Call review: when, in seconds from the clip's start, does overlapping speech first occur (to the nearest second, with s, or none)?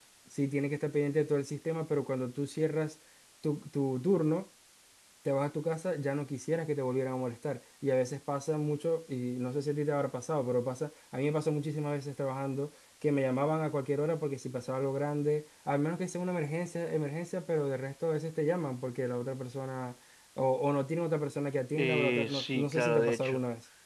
22 s